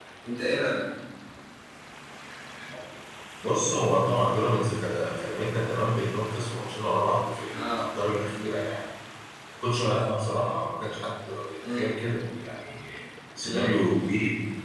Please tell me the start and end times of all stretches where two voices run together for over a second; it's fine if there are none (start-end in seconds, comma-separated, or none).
none